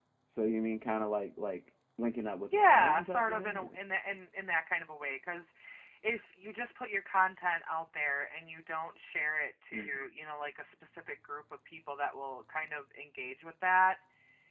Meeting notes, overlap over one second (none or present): present